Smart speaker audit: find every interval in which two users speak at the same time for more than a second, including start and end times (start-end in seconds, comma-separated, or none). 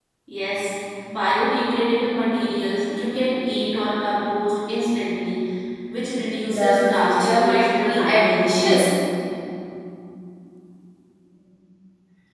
6.5-8.6